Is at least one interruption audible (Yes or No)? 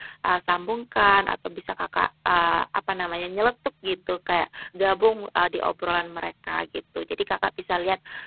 No